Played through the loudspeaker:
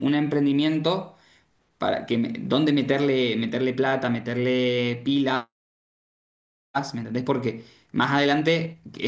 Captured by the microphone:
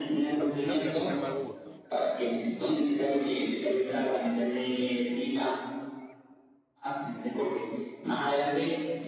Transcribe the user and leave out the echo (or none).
no, no creo que sea mal gusto,